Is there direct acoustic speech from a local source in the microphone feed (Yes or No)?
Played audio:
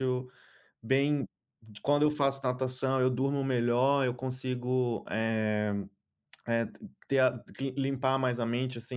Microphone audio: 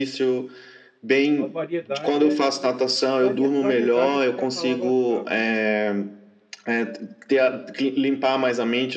Yes